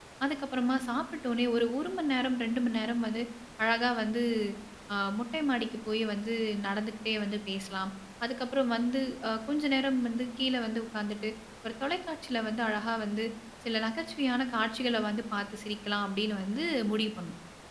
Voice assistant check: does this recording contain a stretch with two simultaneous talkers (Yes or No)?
No